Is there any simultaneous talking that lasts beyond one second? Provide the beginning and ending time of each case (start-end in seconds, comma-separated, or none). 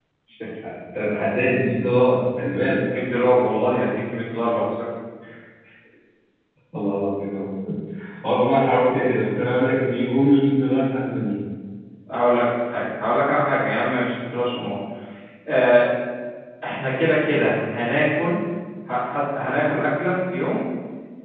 none